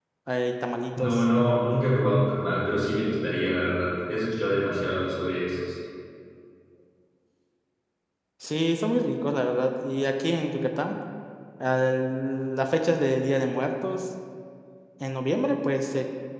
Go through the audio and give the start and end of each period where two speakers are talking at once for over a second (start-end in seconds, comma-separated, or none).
none